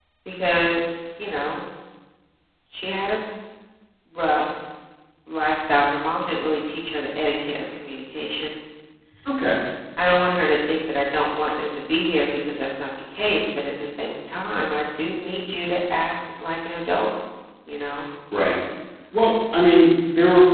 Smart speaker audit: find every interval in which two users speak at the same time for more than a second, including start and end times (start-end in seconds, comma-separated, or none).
none